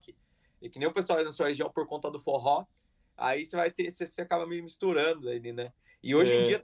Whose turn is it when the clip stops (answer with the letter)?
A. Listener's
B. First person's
B